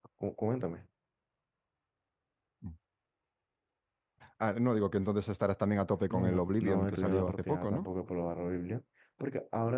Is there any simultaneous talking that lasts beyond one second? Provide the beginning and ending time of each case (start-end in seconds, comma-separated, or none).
6.1-7.9